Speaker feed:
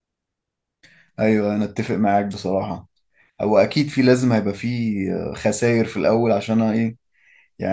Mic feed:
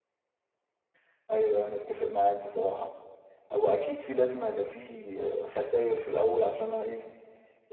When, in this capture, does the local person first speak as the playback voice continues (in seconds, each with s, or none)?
none